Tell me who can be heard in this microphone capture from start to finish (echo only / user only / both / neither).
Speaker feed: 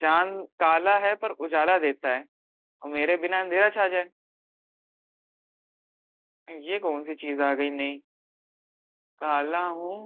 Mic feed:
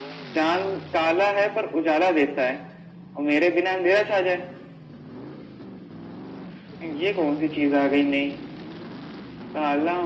echo only